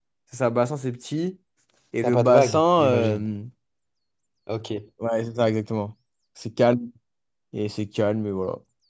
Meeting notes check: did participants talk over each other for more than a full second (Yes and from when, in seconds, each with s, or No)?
Yes, from 2.0 s